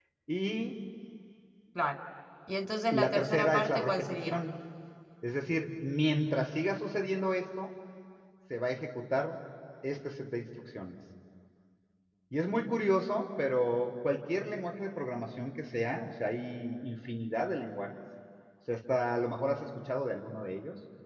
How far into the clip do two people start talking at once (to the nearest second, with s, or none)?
3 s